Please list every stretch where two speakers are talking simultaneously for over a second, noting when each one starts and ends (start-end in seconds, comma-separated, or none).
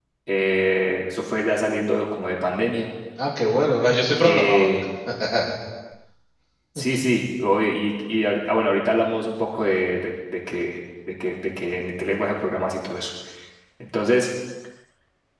none